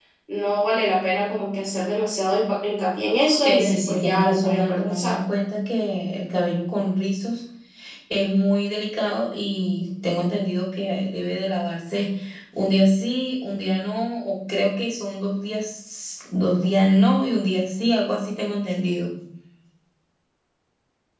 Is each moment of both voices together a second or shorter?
No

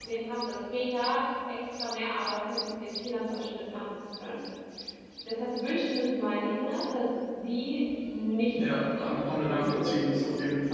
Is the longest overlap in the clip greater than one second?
Yes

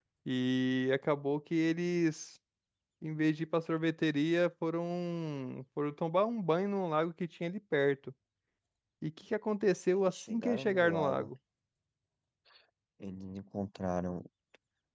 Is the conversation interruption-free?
No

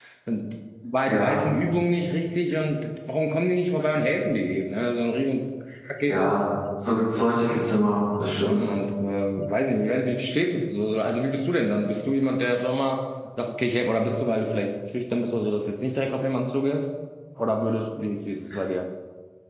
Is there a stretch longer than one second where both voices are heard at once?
No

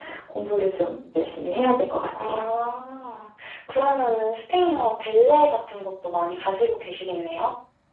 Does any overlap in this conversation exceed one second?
No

